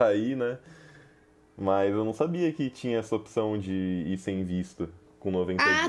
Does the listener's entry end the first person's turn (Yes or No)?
Yes